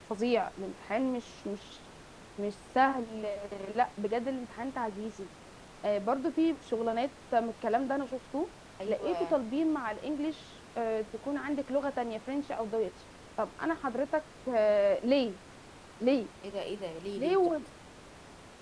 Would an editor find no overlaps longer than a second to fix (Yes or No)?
Yes